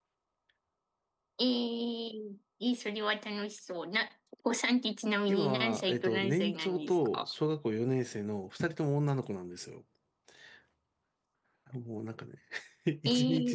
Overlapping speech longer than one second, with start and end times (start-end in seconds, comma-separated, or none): 5.3-7.2